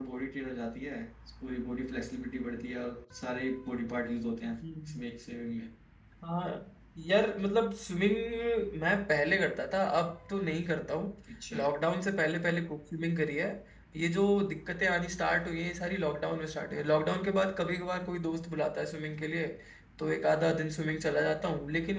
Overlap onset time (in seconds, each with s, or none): none